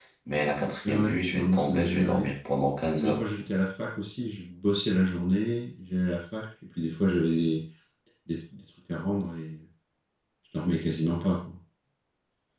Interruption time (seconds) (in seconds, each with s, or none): 0.8 s